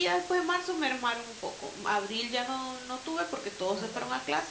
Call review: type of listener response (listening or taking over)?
listening